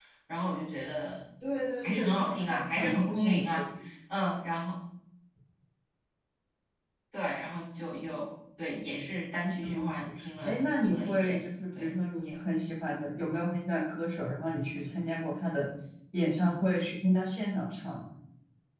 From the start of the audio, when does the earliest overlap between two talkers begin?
1.8 s

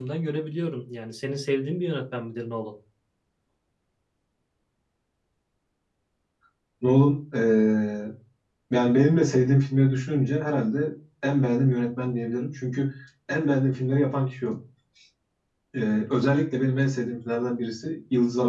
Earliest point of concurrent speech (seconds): none

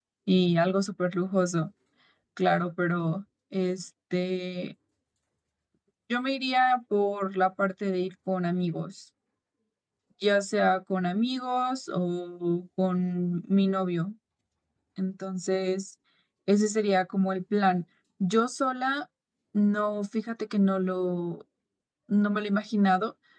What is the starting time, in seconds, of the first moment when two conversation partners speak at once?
none

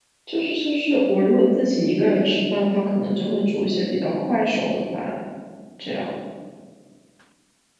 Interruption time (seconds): none

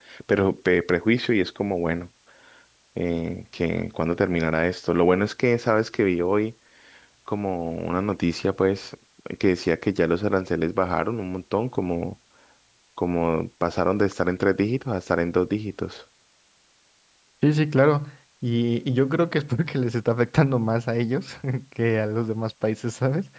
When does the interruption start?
none

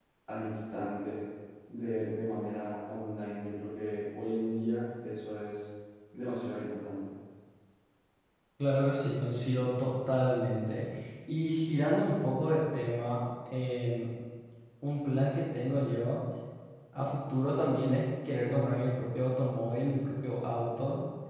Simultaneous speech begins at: none

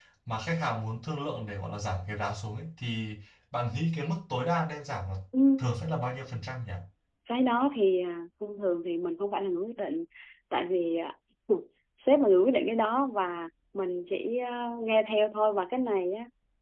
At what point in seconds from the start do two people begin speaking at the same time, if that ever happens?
none

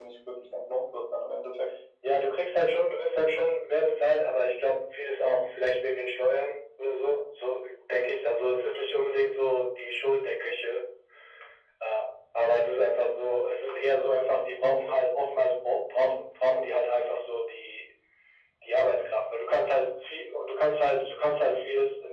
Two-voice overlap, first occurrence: none

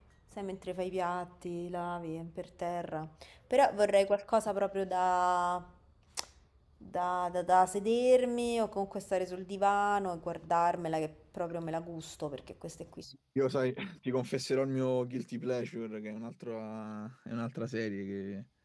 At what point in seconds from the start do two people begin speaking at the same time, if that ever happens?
none

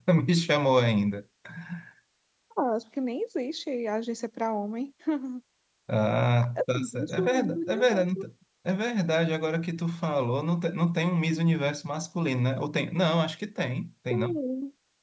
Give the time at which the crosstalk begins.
6.7 s

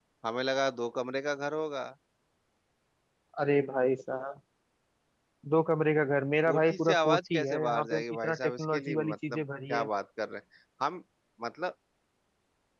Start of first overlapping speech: 6.5 s

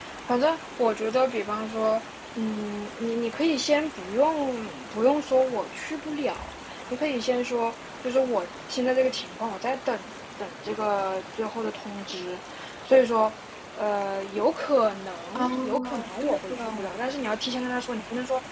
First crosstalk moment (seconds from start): 15.4 s

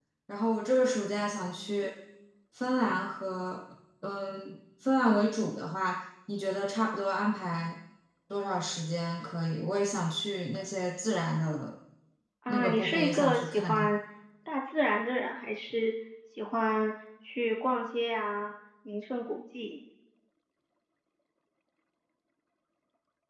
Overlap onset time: 12.5 s

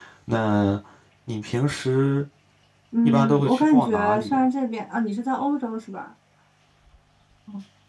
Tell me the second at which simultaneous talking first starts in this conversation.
3.0 s

